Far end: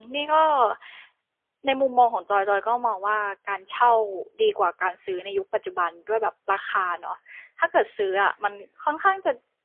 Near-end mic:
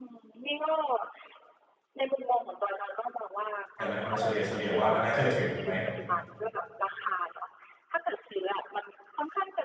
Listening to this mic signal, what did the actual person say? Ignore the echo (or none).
ใช่ไหมเอามาเฉลี่ยเฉลี่ยว่ามันน่าเชื่อถือไหม